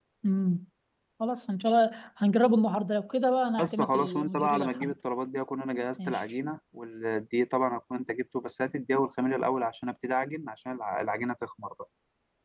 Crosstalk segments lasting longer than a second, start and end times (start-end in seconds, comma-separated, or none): 3.6-4.9